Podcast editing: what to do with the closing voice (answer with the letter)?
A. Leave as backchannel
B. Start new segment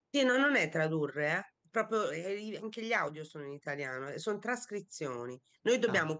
A